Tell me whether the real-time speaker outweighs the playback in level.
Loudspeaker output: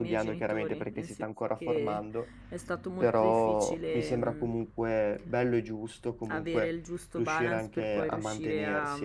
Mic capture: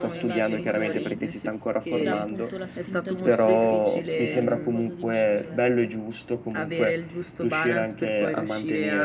No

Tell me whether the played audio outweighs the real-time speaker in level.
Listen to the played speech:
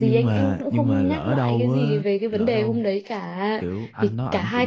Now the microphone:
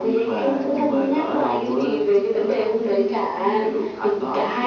Yes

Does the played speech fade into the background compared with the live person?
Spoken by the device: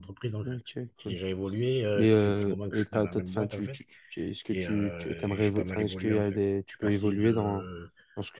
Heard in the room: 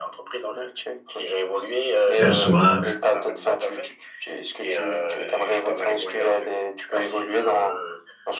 Yes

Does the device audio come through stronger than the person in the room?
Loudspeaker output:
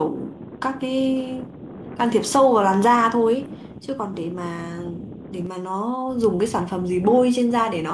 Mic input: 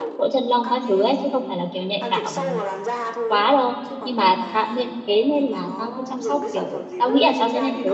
No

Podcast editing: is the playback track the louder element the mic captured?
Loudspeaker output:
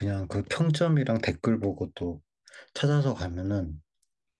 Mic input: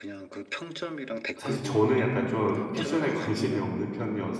No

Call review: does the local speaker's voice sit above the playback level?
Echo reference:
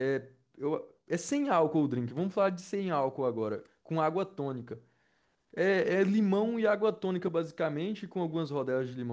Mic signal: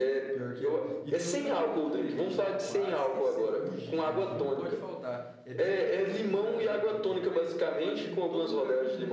No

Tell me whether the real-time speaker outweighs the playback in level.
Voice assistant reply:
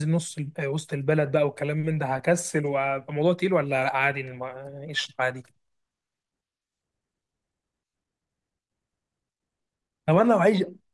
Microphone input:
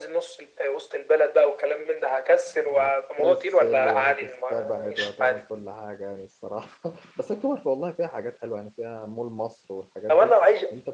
No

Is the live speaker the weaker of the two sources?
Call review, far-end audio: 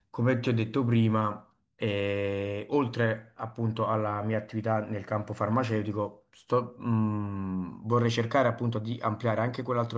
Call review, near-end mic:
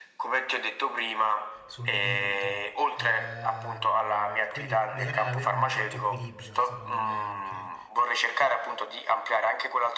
Yes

